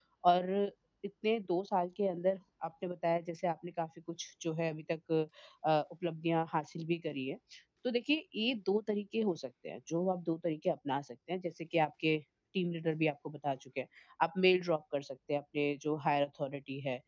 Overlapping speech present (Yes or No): No